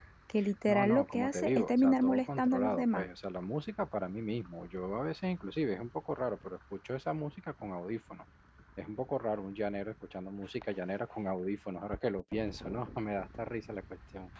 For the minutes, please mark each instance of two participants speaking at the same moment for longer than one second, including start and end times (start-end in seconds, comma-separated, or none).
0.7-3.1